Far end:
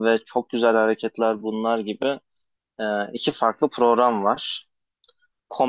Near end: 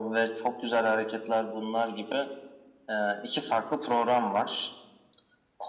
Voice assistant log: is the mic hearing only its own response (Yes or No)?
Yes